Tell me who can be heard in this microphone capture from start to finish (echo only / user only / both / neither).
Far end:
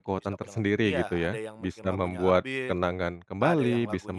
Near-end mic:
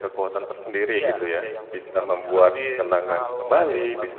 both